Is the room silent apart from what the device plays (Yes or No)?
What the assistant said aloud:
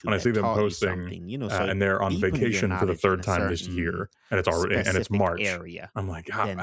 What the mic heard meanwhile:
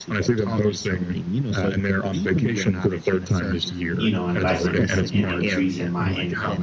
No